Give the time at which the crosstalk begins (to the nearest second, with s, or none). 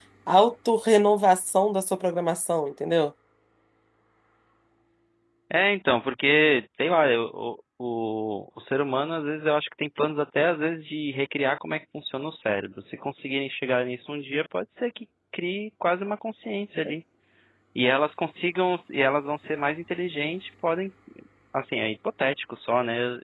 none